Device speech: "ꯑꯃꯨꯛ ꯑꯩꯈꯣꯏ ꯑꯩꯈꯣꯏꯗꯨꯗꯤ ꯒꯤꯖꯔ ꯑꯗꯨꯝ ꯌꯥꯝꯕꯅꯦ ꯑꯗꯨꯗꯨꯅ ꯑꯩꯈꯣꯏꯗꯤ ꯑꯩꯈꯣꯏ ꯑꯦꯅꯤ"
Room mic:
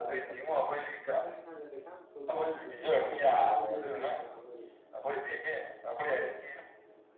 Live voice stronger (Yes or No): No